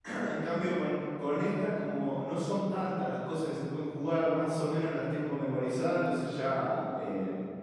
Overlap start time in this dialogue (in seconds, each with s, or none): none